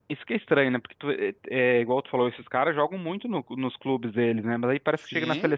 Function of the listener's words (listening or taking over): listening